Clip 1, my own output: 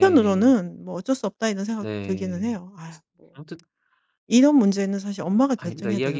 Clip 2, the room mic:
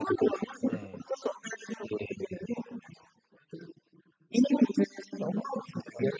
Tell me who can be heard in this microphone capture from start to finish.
both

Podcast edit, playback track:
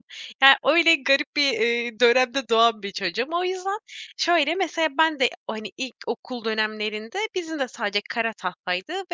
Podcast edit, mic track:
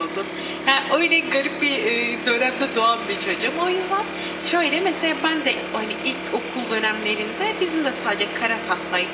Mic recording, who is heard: echo only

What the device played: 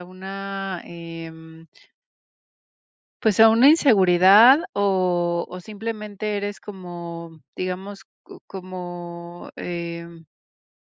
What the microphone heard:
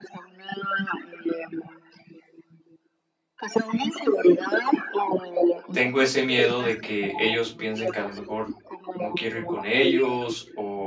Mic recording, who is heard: both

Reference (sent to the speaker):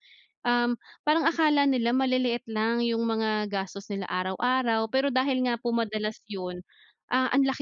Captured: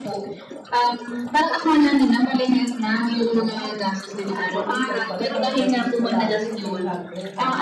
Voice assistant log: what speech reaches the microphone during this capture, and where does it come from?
both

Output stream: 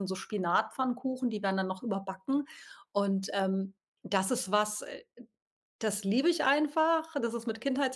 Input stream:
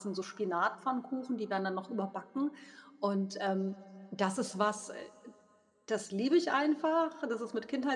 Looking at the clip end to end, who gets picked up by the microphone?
echo only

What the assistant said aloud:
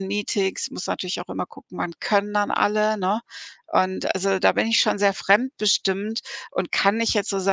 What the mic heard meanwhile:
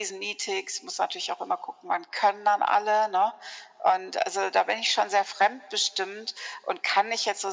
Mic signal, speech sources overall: echo only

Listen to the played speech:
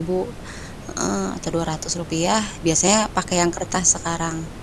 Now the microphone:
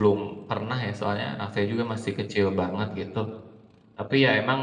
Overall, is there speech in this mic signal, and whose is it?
user only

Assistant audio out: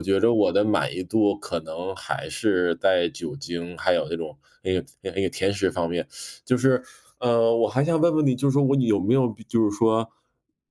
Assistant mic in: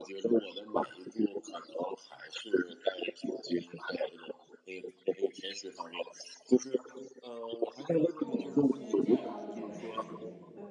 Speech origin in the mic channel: both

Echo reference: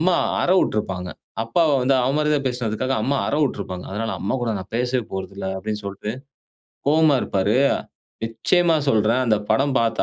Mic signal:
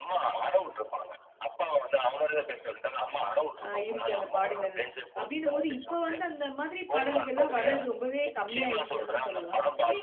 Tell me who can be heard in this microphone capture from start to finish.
both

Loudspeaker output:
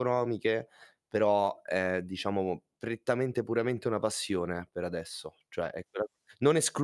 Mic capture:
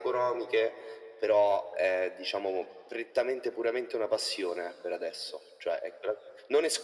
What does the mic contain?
echo only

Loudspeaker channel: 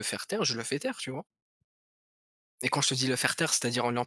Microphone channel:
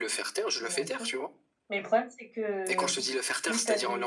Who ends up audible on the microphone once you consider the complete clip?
both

